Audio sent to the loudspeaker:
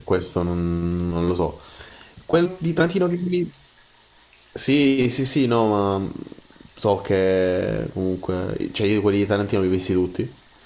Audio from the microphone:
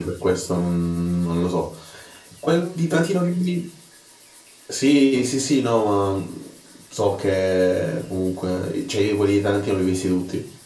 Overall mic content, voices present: echo only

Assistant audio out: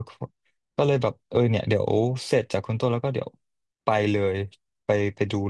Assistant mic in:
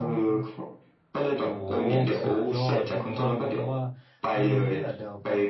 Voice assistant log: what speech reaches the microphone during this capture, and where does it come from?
both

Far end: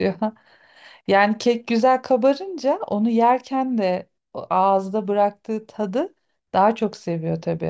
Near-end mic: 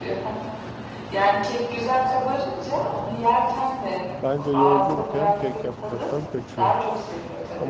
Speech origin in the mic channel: both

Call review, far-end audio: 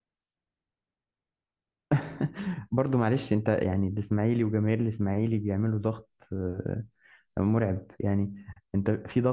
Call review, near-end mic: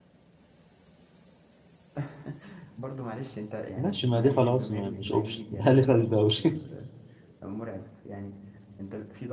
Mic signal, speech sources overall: both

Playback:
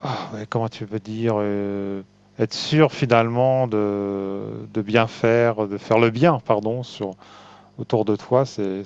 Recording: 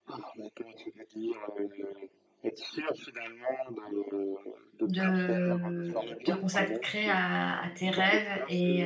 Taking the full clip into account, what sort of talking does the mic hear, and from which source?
both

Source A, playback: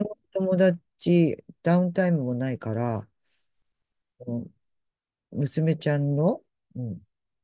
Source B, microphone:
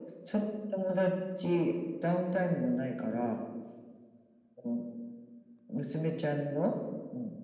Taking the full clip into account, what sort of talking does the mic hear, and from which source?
echo only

